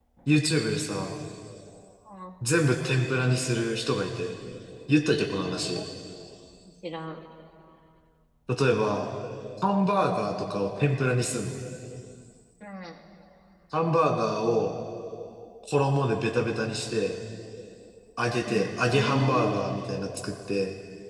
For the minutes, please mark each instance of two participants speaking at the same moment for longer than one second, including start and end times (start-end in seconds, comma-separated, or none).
18.5-19.7